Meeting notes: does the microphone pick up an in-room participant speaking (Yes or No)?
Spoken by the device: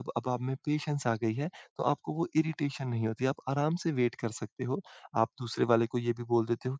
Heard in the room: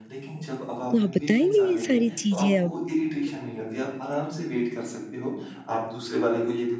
Yes